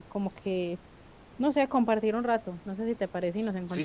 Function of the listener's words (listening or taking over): taking over